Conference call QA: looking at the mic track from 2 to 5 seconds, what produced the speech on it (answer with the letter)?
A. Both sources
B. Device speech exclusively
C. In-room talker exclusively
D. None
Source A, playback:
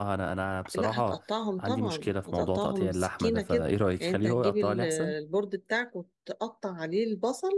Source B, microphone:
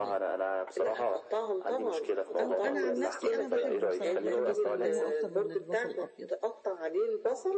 A